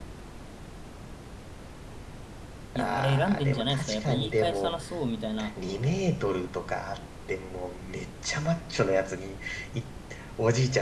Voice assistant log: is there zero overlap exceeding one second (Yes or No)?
No